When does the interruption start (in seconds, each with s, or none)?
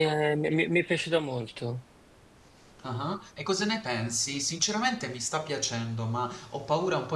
none